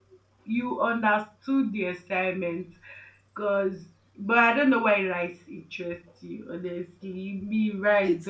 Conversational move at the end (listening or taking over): taking over